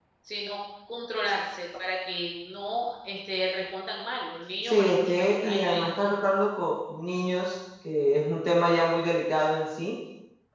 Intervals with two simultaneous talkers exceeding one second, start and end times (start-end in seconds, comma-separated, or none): 4.7-6.1